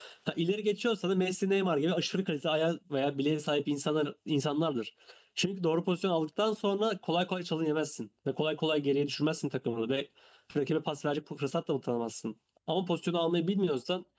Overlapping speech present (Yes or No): No